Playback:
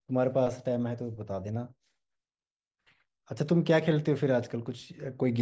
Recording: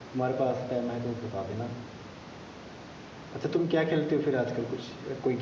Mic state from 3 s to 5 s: echo only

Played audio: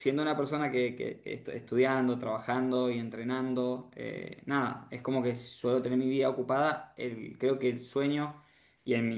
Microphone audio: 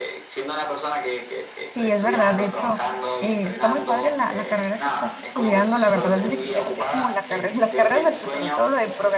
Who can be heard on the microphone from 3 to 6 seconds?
both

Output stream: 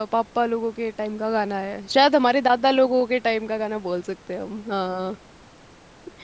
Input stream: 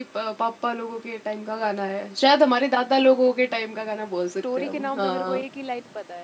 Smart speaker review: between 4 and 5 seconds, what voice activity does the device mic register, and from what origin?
both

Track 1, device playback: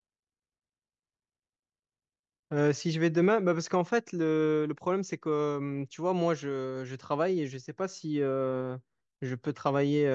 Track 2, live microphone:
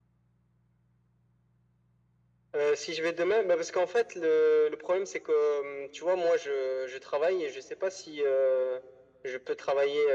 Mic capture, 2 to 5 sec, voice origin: echo only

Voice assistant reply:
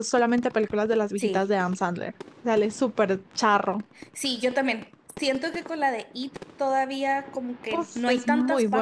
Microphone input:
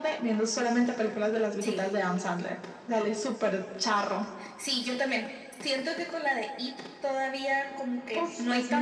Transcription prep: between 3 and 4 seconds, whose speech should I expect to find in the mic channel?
echo only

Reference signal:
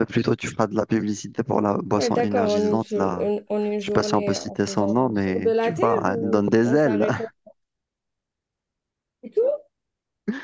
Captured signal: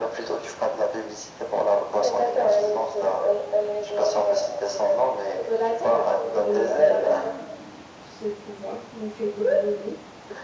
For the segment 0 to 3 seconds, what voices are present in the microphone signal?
echo only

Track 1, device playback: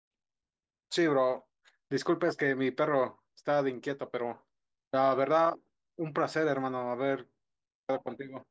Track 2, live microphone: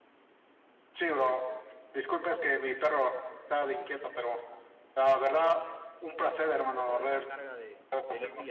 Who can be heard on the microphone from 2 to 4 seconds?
echo only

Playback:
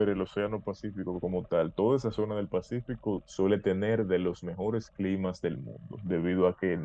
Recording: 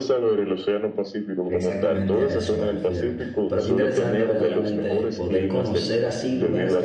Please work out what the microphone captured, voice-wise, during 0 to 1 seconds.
echo only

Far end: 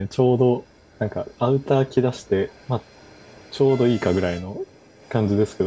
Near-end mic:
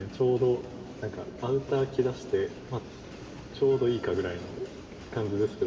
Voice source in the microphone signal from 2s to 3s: echo only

